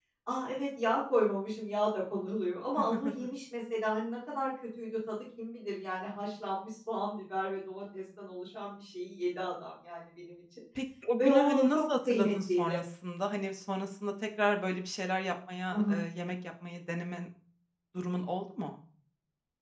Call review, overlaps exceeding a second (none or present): present